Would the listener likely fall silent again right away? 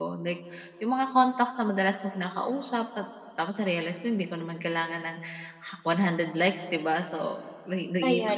Yes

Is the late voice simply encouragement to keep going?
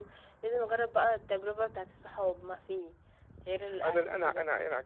No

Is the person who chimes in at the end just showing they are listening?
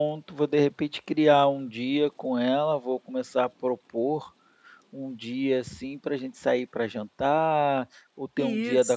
Yes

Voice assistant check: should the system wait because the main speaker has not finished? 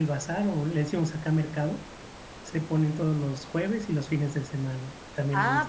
No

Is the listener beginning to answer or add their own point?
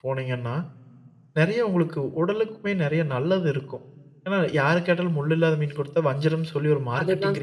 Yes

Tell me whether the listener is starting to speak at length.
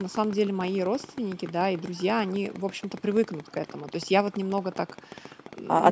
Yes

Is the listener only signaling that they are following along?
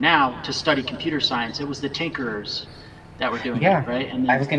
No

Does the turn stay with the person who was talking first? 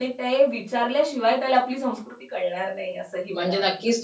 No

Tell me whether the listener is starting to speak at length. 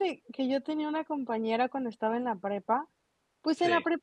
No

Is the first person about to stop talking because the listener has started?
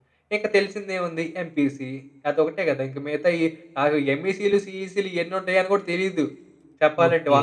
Yes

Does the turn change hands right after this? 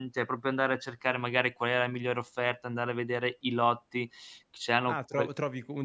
Yes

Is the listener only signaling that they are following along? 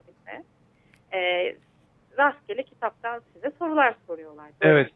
No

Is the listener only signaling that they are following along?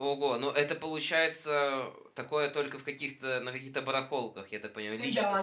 No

